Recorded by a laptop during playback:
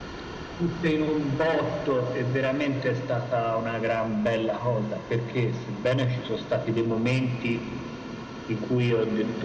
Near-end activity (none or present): none